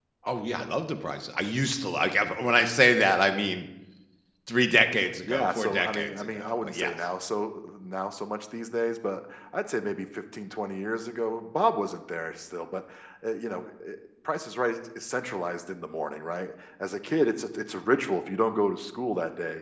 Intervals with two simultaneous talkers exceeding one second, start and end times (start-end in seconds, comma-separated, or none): 5.3-6.9